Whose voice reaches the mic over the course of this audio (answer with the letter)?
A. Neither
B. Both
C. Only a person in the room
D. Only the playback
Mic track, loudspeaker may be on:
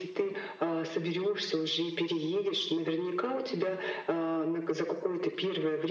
D